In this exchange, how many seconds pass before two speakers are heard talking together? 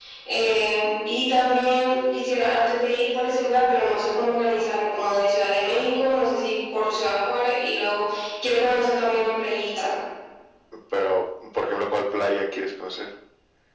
none

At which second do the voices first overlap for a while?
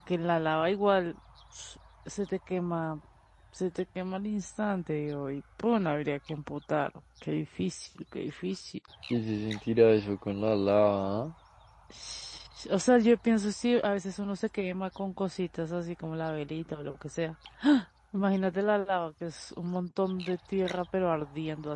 none

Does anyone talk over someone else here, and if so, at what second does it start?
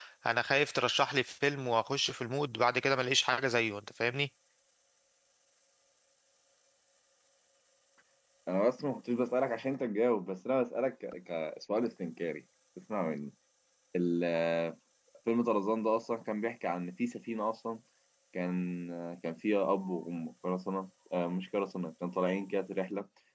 none

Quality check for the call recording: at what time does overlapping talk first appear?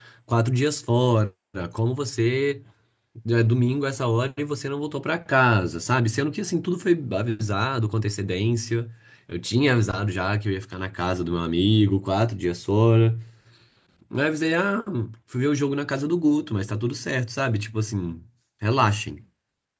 none

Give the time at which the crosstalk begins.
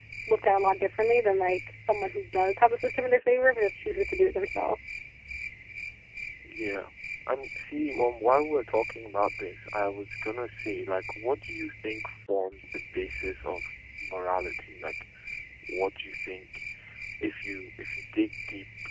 none

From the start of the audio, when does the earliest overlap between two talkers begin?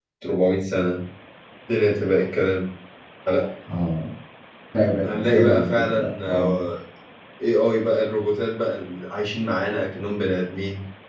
5 s

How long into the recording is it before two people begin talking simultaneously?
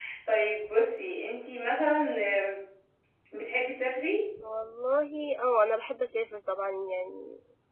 none

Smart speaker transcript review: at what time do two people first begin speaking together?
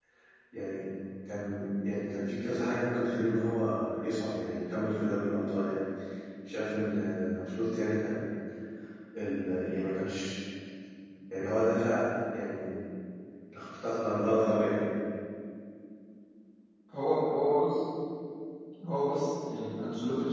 none

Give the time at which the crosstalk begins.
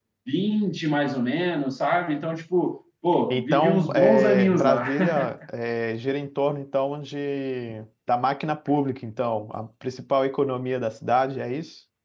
3 s

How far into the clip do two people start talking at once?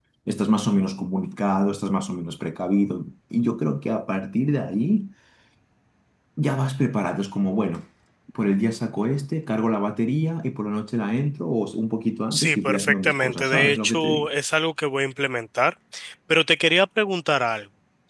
12 s

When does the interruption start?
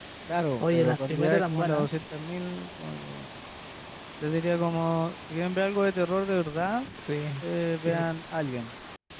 1 s

